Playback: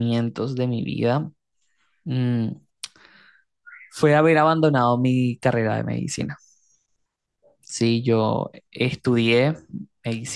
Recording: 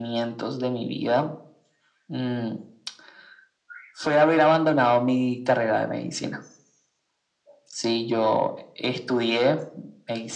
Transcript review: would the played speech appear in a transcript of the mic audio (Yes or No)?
Yes